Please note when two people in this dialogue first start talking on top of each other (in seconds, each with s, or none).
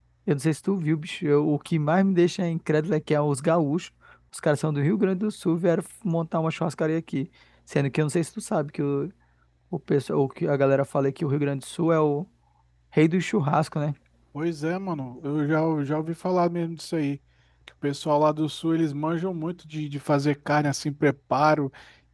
none